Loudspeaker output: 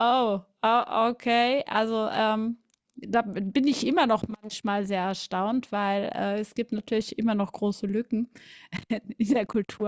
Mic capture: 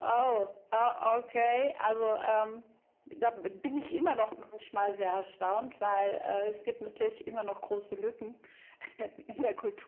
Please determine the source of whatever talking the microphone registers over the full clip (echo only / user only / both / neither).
echo only